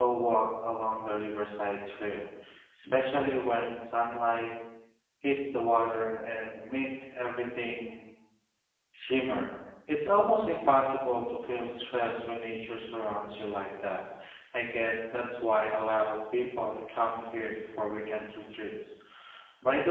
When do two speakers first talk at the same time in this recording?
none

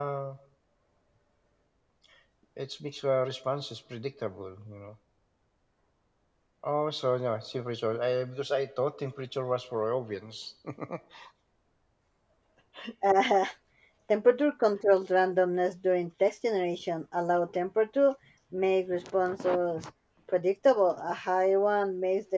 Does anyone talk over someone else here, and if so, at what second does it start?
none

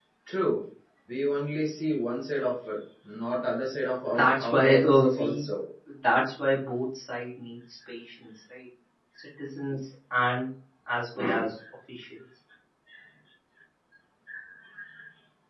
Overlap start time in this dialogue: 4.1 s

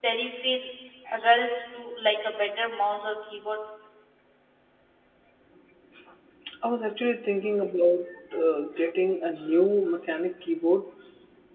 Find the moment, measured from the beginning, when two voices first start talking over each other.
none

